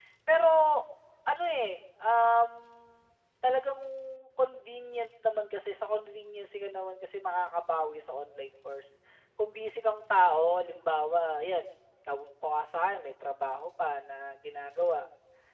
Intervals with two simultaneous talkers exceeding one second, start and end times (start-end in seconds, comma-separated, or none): none